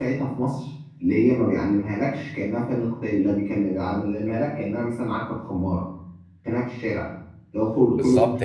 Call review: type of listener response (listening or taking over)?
taking over